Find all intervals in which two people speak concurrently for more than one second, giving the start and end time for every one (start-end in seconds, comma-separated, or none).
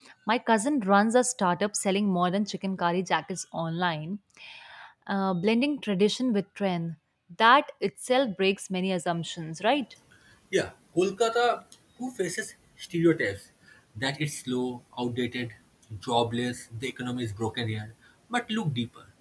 none